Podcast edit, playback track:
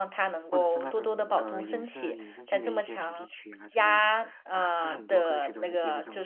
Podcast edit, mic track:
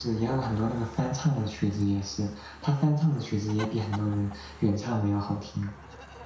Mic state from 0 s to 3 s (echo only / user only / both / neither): user only